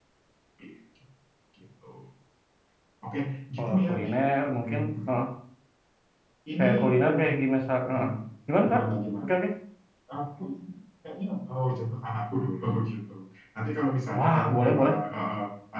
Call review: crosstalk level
present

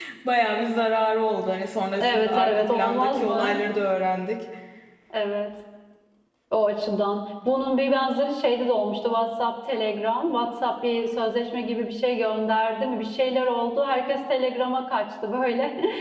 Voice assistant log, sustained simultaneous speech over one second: present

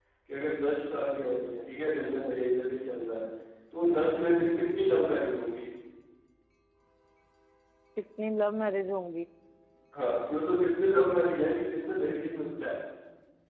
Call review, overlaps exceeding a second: none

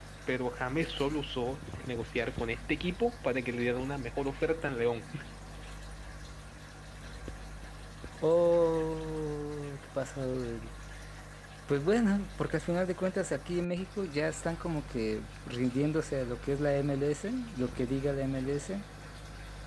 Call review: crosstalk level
none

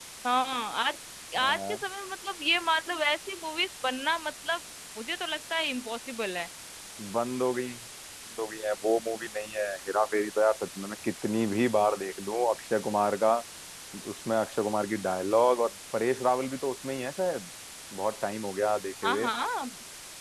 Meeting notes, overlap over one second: none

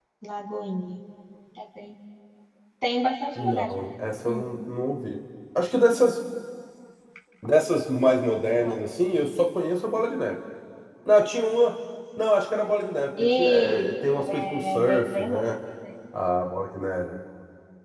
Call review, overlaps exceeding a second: present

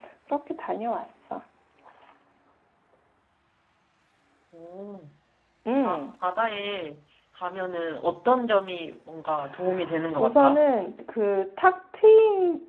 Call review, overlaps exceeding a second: none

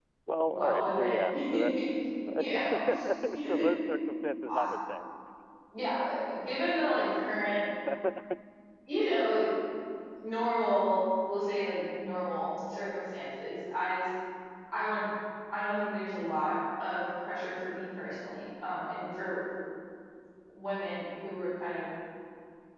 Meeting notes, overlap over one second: present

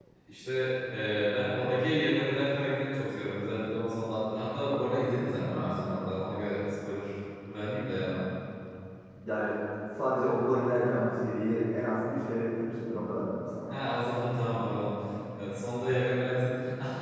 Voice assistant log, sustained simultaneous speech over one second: none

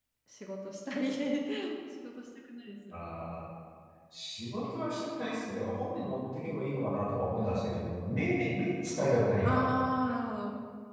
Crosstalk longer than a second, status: none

